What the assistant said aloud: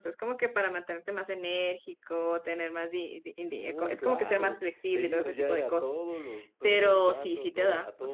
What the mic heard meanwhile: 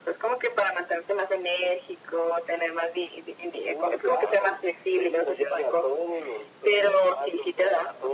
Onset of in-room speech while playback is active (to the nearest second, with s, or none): none